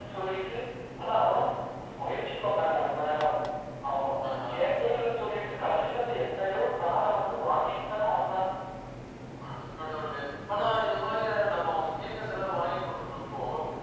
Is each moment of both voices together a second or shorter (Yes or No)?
Yes